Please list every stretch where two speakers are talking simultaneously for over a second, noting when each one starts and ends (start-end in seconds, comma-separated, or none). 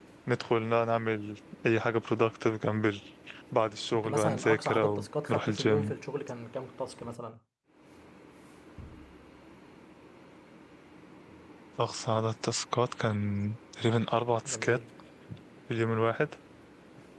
3.9-5.9